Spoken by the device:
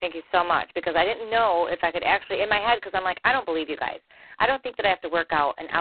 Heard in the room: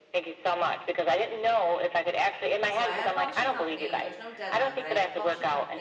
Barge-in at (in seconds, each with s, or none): 2.7 s